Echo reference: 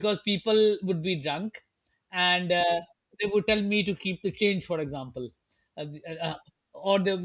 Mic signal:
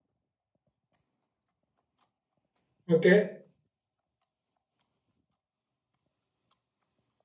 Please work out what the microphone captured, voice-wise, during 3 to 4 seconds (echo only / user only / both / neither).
user only